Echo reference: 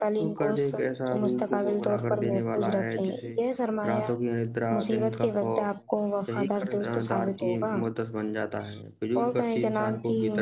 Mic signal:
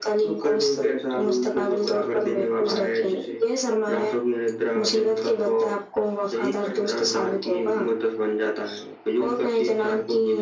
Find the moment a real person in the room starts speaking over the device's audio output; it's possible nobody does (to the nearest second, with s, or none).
none